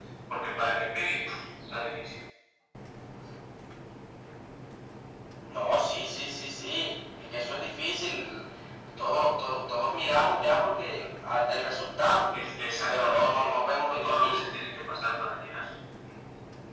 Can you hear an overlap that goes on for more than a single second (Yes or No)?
Yes